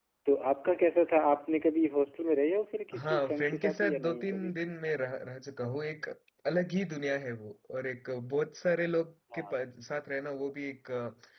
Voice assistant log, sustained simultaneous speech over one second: present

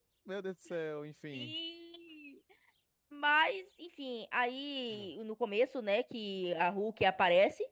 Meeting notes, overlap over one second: none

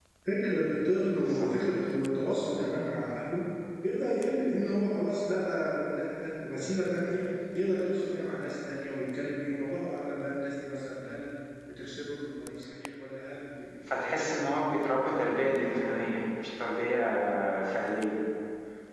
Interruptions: present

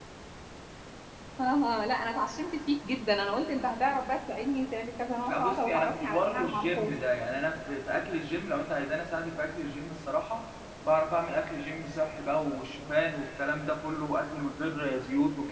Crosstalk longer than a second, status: present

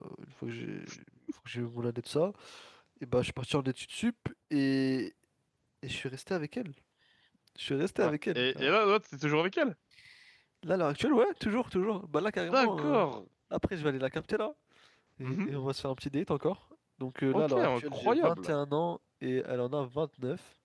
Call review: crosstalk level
present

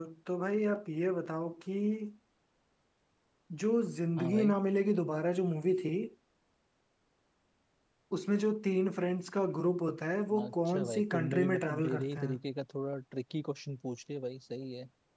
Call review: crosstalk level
present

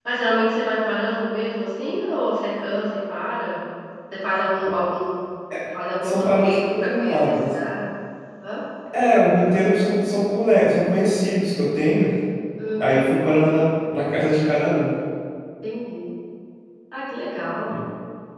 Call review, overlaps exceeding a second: present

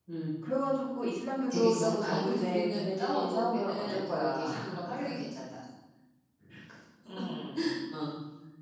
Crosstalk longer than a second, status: present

